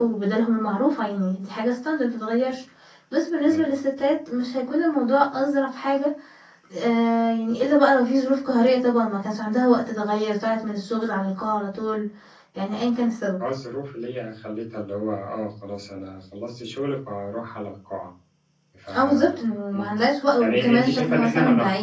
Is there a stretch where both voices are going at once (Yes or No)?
Yes